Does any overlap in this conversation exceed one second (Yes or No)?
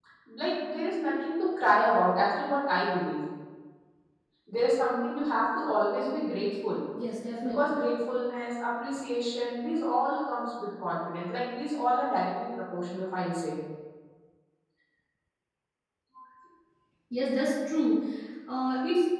No